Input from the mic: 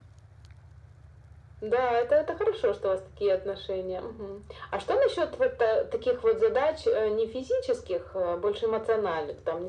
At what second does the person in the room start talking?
none

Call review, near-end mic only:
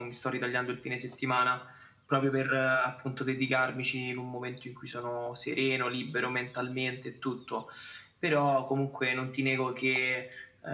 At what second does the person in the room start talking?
none

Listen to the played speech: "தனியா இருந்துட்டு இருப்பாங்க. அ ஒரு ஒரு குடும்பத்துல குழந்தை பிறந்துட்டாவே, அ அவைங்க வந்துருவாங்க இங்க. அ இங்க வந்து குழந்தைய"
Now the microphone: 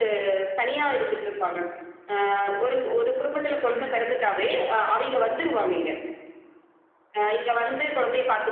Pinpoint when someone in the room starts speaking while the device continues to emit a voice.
3.7 s

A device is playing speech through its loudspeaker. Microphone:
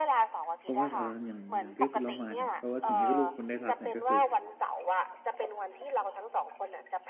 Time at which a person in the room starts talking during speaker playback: 0.6 s

